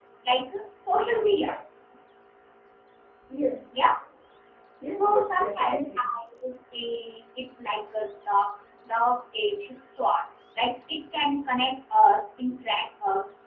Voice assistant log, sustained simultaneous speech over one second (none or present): present